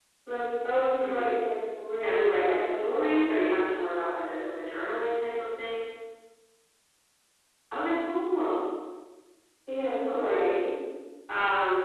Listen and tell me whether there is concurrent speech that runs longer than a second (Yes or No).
Yes